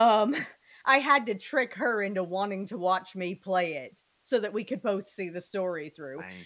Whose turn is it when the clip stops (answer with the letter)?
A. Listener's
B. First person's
B